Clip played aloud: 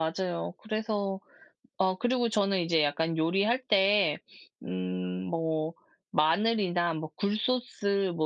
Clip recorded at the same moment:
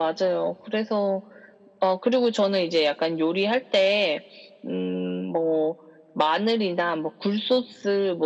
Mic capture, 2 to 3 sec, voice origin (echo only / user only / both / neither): echo only